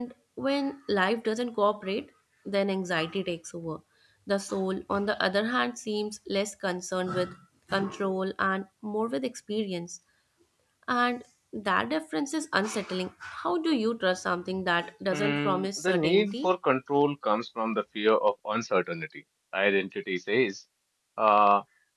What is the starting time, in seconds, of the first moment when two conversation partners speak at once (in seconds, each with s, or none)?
15.1 s